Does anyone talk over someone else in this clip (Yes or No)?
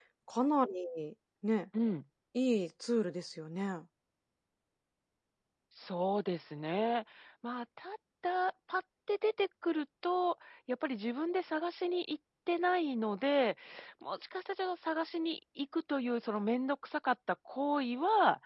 No